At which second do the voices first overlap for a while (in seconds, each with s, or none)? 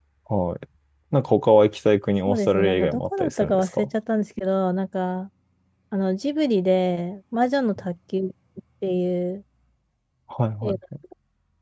2.3 s